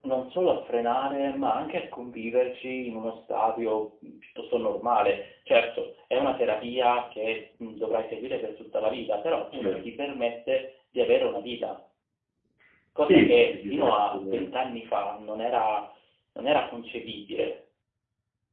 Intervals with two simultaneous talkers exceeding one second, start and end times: 13.0-14.4

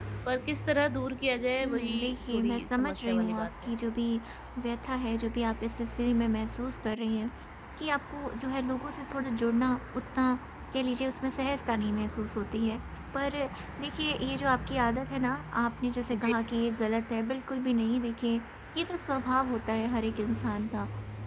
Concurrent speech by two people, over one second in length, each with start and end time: 1.6-3.5

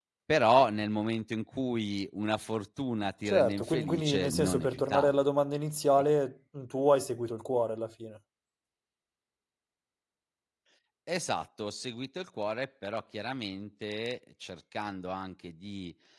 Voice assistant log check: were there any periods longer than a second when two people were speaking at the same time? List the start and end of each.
3.3-5.2

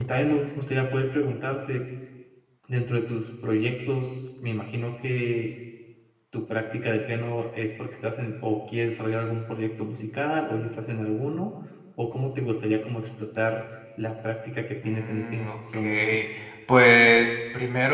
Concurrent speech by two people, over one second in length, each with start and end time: 14.8-16.2

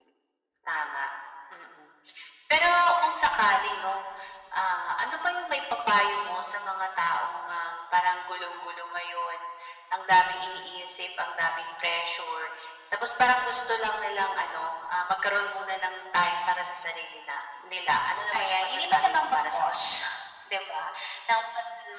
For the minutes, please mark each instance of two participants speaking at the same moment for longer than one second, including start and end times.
18.3-20.1

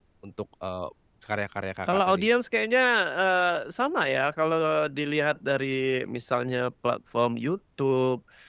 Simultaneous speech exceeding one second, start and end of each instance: none

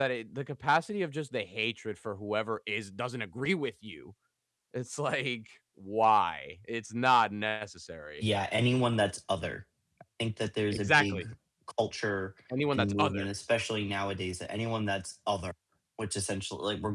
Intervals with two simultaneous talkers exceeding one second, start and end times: none

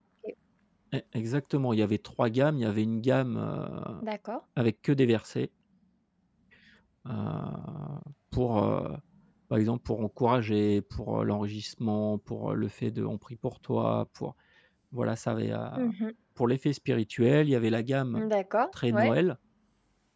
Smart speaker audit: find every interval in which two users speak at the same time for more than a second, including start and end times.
none

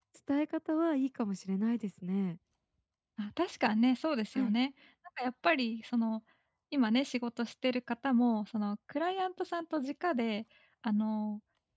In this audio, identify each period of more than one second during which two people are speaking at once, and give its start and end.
none

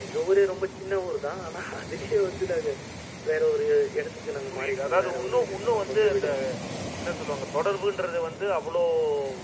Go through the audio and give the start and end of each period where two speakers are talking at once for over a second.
4.5-6.3

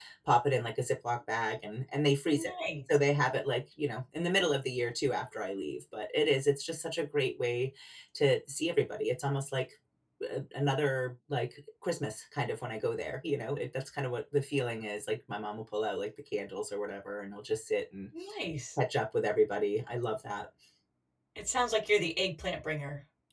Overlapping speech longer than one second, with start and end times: none

